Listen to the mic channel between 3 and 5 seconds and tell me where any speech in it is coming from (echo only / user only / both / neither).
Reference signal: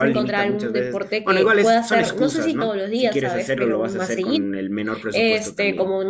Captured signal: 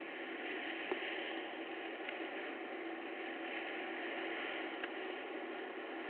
neither